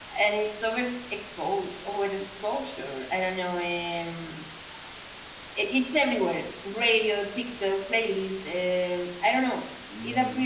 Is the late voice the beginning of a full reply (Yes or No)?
No